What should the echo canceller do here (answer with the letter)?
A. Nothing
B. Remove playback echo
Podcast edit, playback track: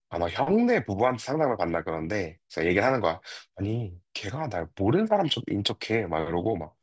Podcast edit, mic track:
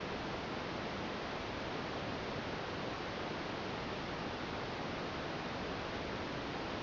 A